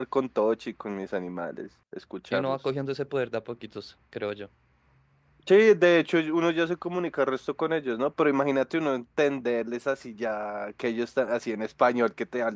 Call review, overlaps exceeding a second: none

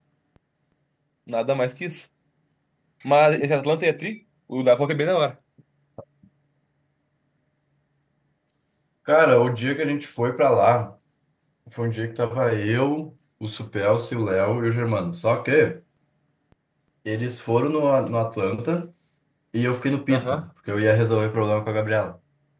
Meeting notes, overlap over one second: none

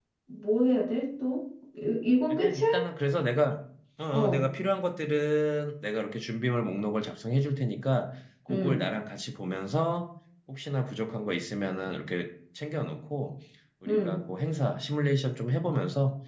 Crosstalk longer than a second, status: none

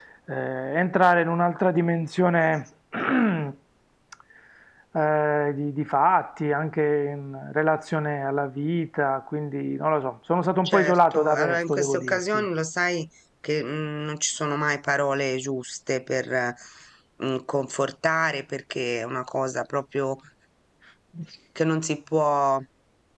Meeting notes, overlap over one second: present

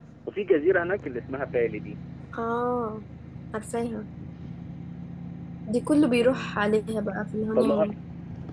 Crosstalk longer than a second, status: none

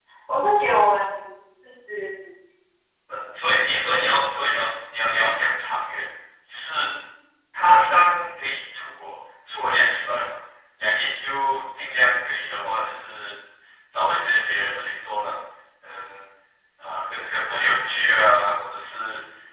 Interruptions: none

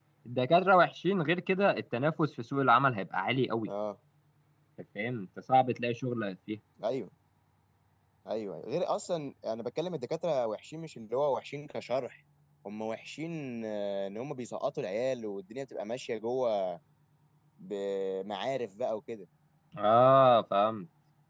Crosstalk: none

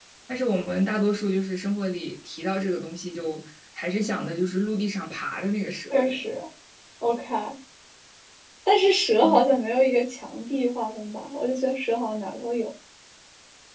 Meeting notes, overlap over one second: none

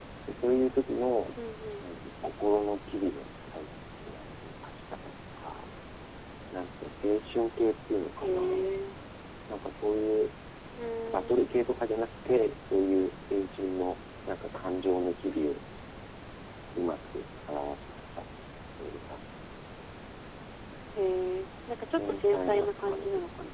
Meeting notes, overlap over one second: present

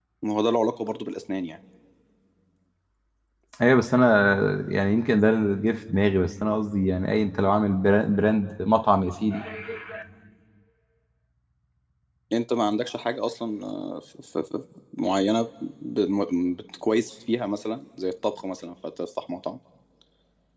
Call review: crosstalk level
none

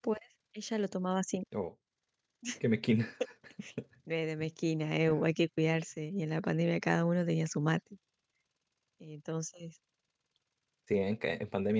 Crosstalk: none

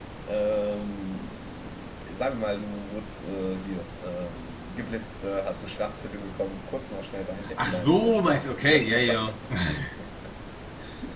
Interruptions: present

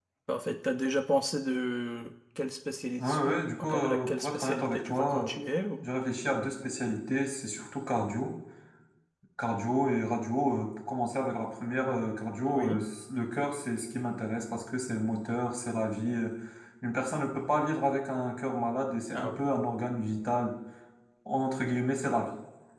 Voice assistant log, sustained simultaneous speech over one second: present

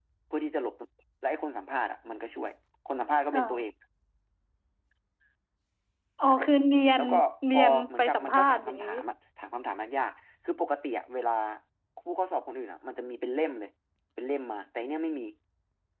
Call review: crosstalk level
present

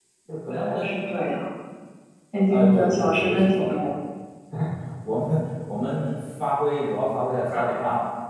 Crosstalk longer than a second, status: present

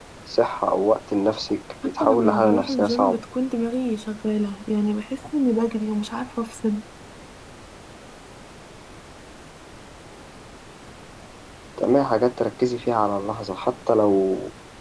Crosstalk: present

